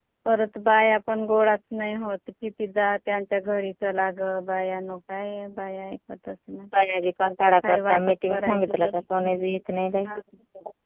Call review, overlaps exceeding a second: present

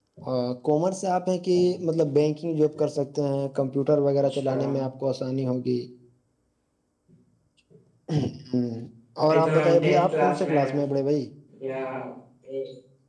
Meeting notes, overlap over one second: present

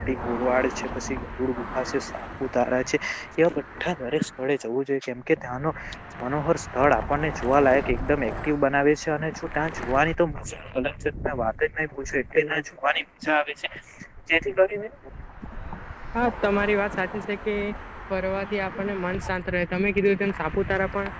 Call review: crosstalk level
none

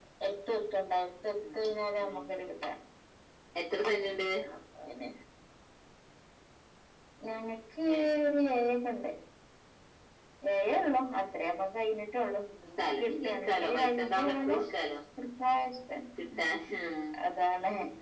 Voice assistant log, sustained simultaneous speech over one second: present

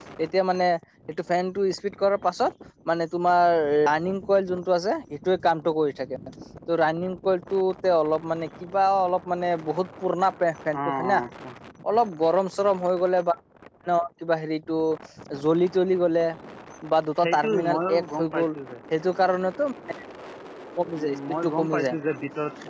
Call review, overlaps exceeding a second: present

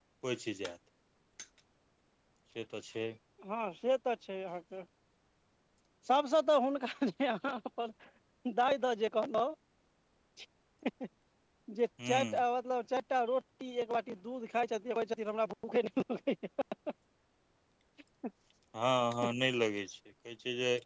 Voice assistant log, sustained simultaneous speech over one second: none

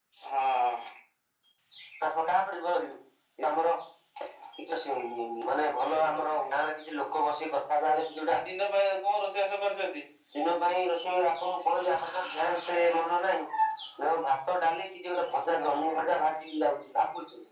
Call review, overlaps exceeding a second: none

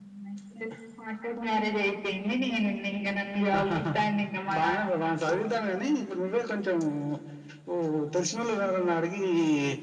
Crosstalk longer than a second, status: none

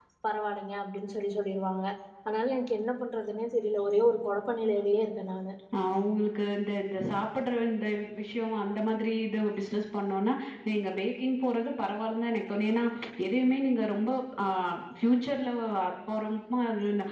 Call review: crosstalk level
none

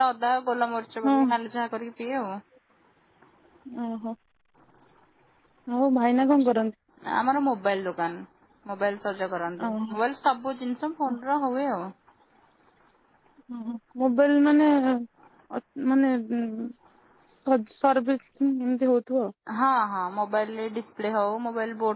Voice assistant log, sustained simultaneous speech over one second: none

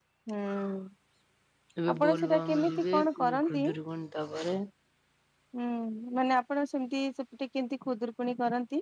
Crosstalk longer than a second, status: present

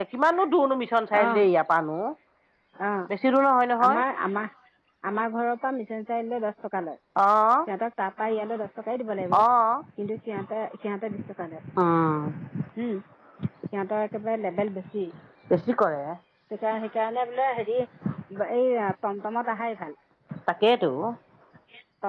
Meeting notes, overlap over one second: none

